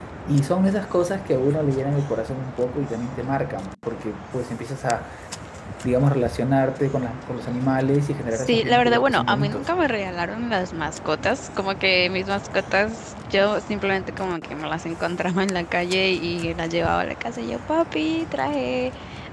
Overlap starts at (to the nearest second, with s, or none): 8 s